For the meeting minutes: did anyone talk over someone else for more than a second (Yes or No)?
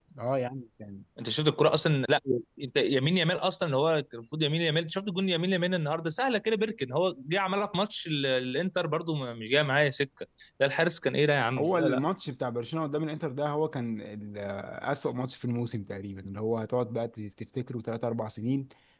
No